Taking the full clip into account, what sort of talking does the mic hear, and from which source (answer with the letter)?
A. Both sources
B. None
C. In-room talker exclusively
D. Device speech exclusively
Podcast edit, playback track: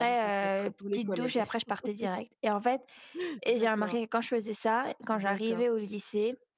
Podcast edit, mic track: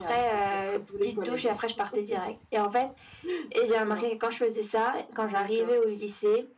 D